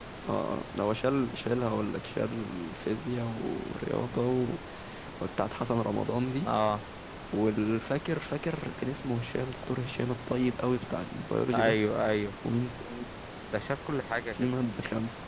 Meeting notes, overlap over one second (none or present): none